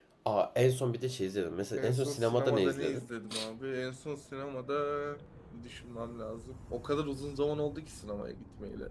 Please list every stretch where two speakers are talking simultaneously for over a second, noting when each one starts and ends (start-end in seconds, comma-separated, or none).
1.8-3.0